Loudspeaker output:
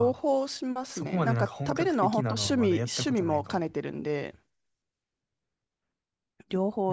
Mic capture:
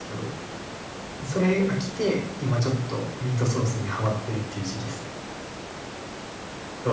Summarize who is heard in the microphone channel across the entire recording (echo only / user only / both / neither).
user only